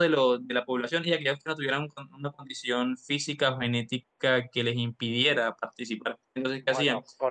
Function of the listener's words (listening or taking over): taking over